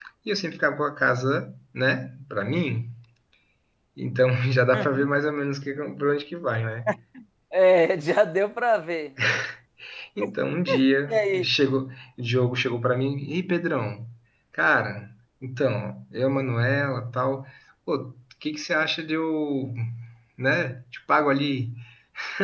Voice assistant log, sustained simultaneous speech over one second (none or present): none